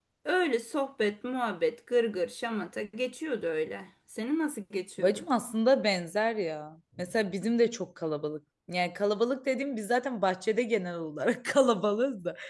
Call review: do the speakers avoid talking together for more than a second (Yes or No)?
Yes